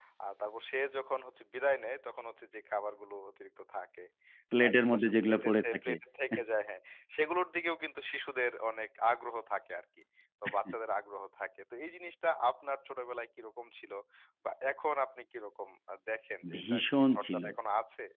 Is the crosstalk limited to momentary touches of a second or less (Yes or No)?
No